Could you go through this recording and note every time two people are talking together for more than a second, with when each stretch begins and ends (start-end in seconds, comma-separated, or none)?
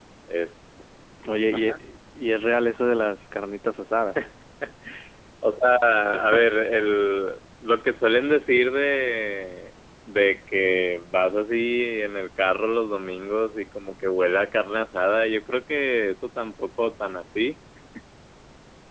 none